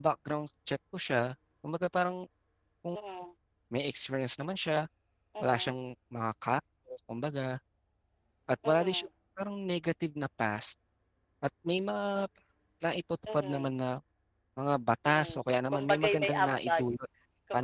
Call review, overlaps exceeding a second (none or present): present